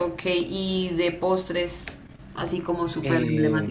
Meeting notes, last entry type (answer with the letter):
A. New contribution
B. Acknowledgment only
A